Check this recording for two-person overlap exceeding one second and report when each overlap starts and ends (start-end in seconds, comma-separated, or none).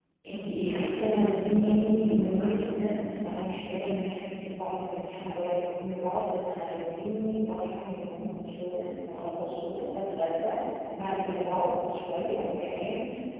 0.6-2.7